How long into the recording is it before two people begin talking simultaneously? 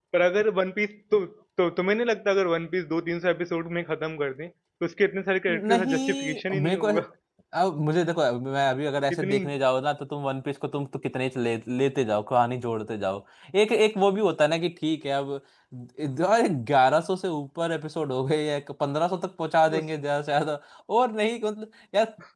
5.5 s

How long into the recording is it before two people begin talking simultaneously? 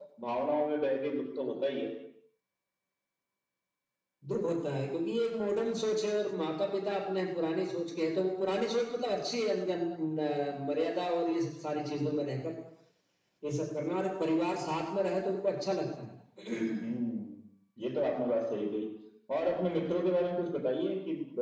none

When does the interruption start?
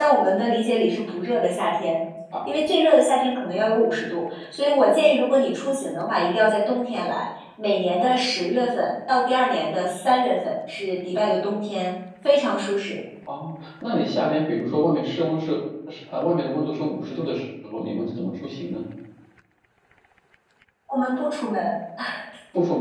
none

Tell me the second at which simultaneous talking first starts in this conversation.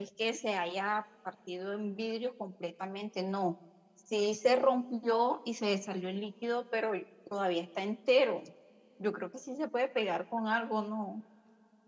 none

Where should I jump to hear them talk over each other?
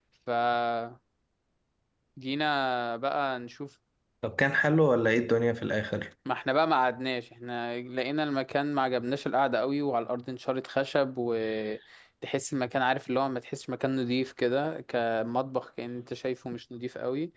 none

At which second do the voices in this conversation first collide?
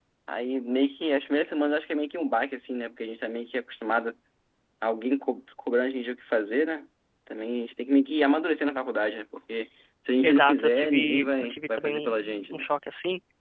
10.2 s

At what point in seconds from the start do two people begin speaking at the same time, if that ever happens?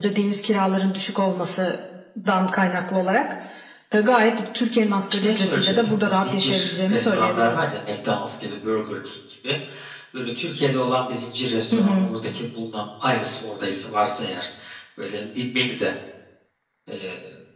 5.2 s

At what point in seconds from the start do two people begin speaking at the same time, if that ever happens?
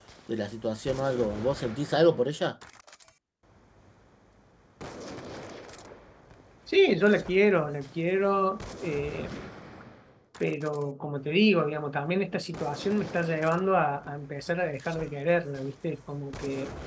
none

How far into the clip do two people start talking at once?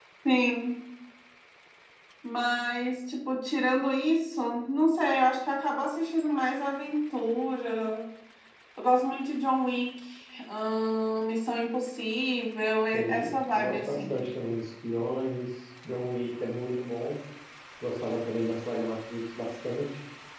12.9 s

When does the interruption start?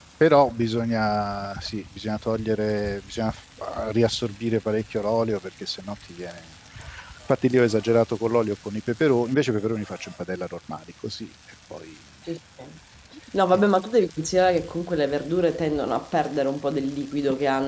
none

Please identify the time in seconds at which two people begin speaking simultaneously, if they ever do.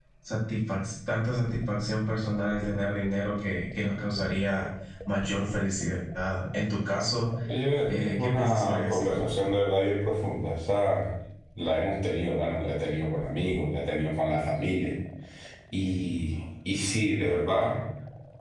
7.9 s

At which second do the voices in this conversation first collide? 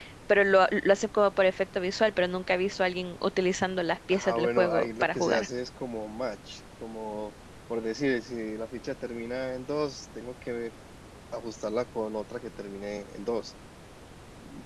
4.1 s

